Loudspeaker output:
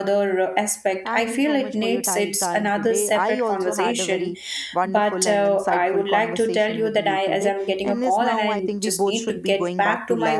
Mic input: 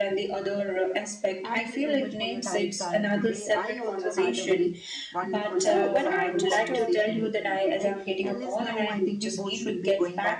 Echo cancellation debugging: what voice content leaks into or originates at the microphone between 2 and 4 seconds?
echo only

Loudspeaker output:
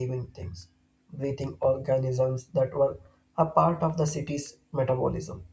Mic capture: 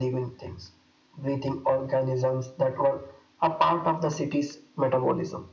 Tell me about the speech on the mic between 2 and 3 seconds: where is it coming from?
echo only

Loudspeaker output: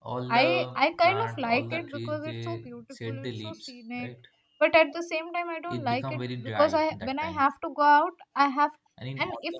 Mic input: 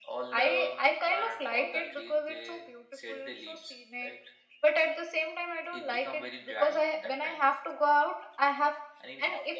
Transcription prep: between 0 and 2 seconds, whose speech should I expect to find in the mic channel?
echo only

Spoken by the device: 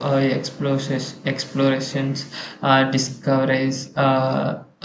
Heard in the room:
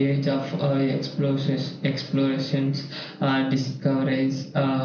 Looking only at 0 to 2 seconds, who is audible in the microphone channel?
echo only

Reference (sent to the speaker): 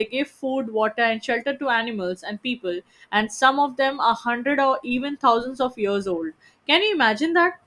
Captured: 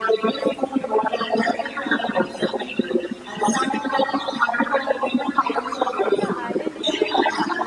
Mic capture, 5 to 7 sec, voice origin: both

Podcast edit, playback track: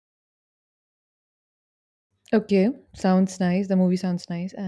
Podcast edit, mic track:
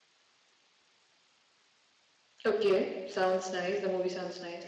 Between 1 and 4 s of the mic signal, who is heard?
echo only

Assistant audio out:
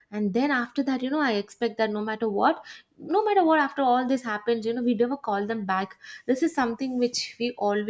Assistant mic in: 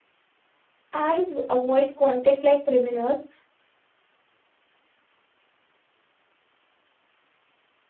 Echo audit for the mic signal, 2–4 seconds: user only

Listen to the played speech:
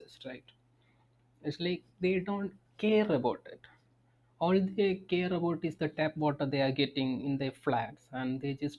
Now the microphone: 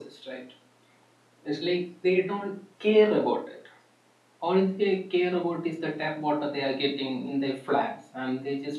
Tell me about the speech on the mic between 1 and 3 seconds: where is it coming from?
echo only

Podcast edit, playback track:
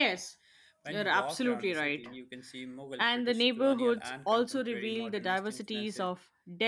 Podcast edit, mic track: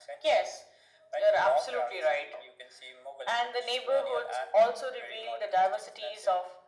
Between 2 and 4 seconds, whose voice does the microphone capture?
echo only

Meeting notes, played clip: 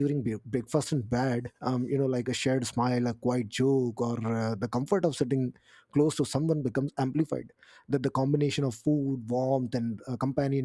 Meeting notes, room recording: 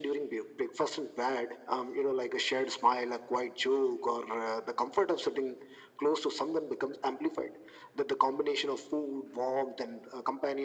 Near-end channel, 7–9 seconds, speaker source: echo only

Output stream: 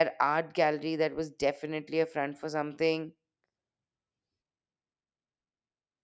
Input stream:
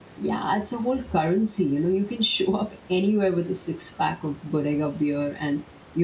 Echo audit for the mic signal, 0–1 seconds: user only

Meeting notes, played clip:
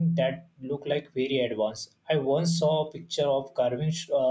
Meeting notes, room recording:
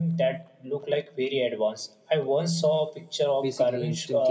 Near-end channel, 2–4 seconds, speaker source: both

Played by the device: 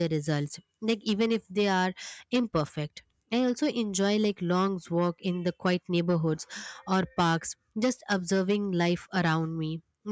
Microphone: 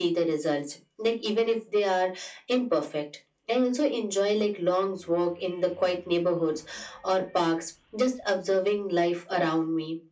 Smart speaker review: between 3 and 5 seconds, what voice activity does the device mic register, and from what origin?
echo only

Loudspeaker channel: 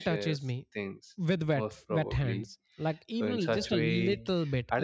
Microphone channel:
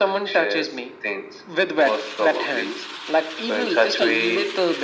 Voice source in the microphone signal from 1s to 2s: echo only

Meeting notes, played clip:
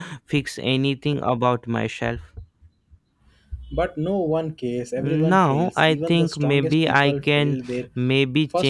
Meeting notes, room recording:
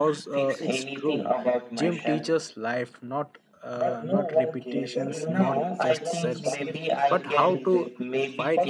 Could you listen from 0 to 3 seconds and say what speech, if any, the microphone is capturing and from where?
both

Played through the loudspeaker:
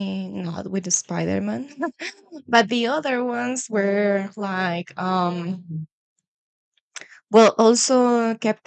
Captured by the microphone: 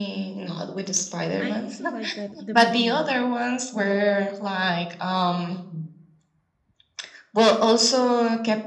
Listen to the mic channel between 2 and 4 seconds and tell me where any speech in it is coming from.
both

